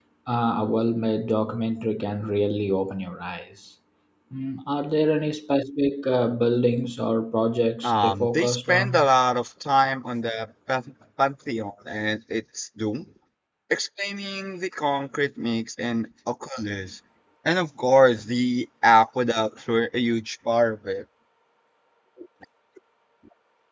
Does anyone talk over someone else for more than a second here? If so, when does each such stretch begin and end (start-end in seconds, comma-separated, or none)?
7.8-9.1